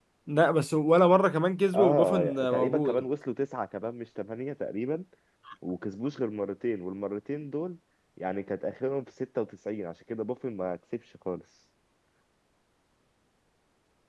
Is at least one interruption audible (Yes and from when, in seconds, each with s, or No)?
Yes, from 1.7 s